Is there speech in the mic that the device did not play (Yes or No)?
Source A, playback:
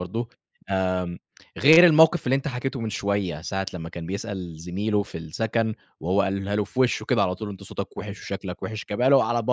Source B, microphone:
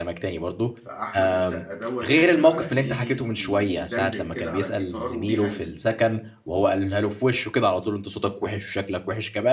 Yes